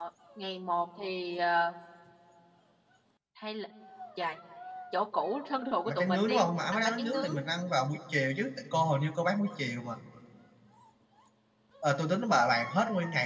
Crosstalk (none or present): present